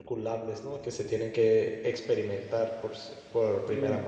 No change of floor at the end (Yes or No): No